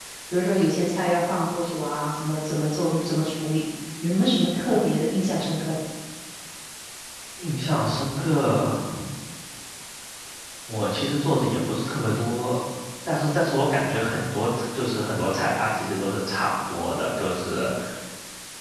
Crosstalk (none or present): none